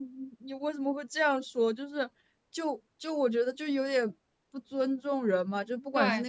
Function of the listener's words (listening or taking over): listening